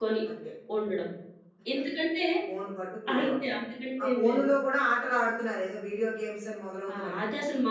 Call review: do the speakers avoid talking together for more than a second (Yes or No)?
Yes